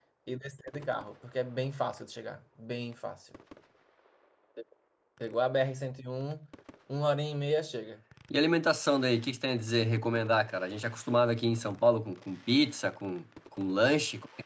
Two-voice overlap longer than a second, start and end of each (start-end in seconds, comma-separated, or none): none